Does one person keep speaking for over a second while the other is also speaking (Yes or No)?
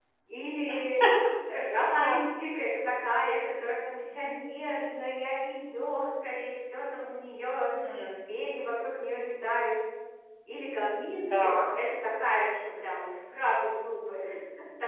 No